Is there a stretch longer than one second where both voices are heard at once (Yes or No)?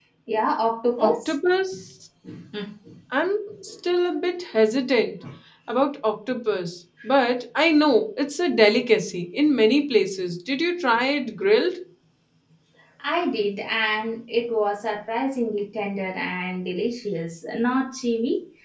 No